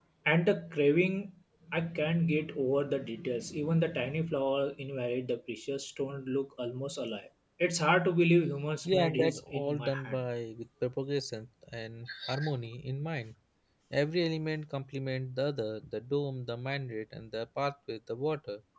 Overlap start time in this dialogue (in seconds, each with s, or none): 8.8 s